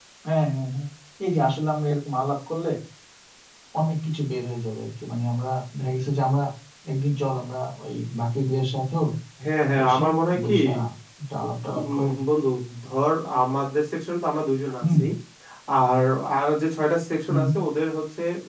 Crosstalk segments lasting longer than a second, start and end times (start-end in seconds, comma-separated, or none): none